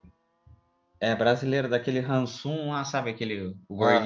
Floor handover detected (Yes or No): Yes